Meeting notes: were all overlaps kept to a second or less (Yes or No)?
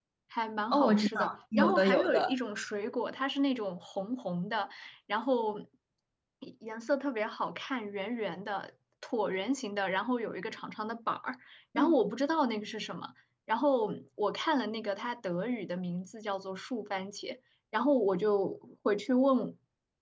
No